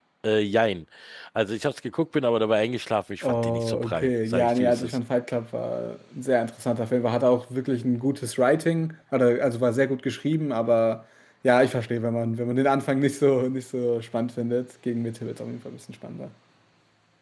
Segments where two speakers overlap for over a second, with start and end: 3.2-5.0

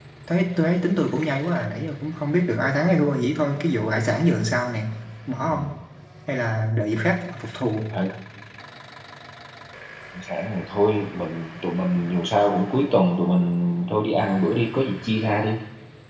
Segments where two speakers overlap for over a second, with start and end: none

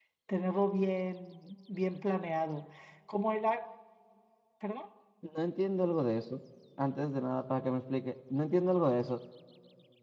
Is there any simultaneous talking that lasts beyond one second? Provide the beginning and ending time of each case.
none

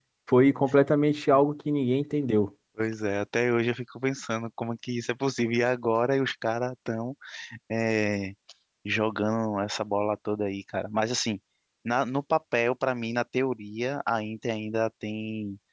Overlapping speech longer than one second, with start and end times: none

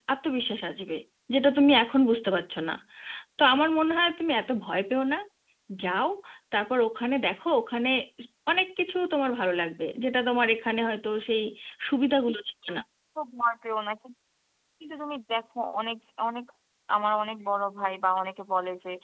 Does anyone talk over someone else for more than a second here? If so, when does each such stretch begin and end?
none

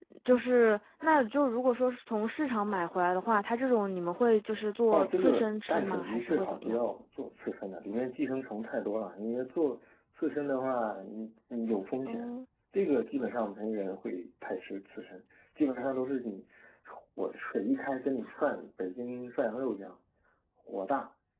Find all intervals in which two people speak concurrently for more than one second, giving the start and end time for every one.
4.9-6.8

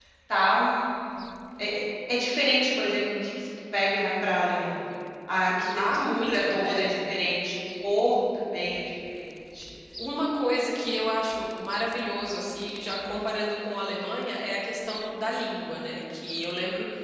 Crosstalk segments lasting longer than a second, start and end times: 5.8-7.0

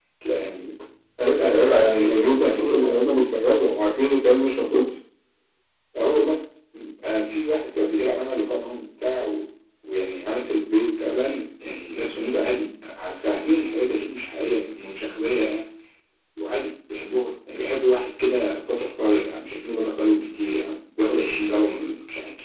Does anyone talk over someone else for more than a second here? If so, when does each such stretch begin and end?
1.3-2.9

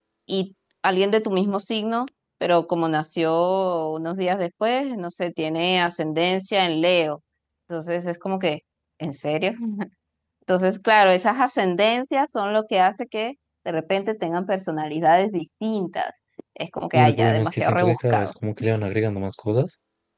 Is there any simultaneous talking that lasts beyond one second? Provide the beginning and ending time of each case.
16.9-18.3

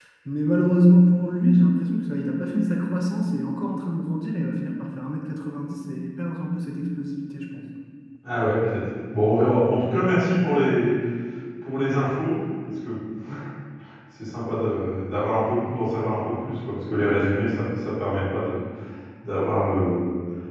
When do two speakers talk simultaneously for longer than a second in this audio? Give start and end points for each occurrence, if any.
none

